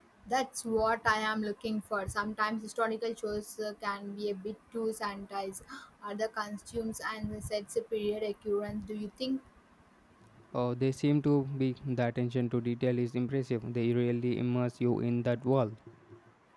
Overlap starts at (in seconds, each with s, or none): none